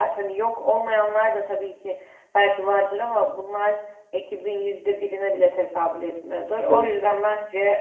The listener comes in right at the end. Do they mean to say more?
No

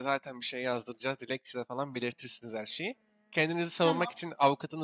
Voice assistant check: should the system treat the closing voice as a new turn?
No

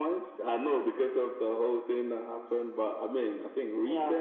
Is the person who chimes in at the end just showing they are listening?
Yes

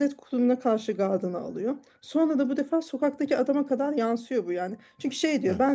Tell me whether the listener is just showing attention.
Yes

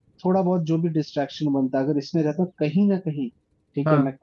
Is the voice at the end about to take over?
No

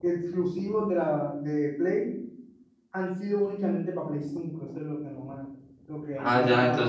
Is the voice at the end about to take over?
Yes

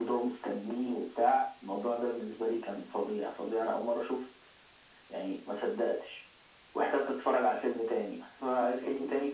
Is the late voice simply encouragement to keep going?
Yes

